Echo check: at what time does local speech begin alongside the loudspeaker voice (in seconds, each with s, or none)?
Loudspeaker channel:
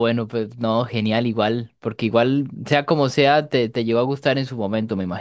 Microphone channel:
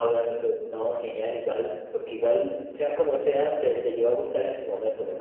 none